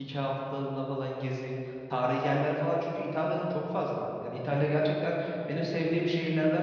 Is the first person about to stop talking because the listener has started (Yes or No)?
No